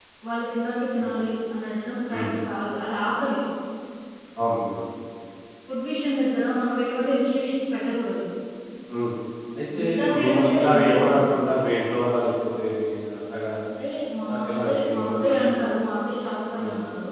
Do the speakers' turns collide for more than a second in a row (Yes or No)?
Yes